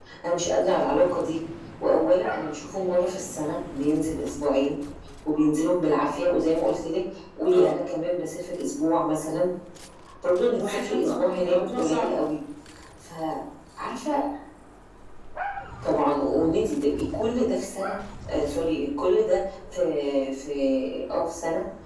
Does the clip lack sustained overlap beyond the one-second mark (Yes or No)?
No